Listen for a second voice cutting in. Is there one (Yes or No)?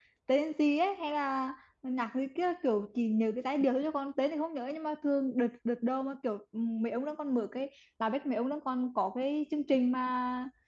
No